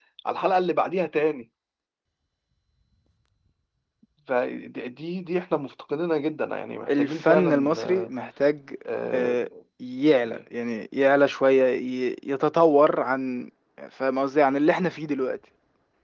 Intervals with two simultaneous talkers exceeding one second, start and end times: 6.9-8.1

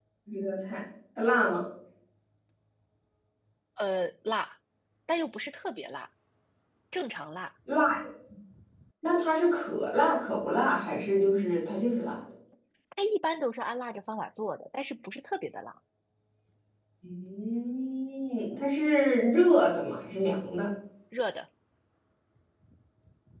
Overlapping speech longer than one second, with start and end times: none

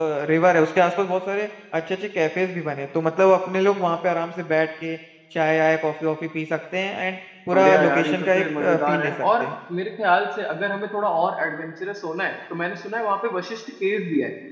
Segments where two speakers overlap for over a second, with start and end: 7.5-9.5

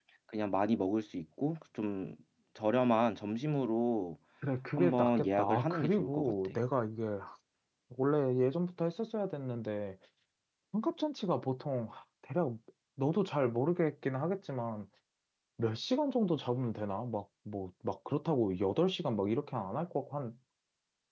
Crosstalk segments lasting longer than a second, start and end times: 4.8-6.5

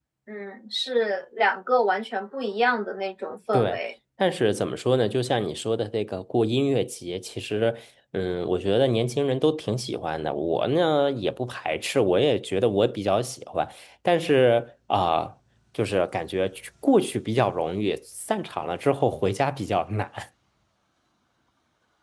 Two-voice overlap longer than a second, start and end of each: none

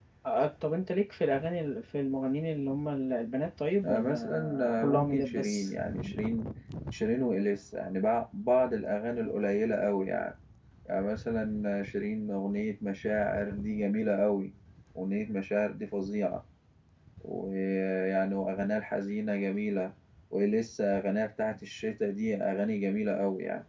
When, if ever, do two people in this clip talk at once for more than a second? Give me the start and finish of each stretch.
3.8-5.7

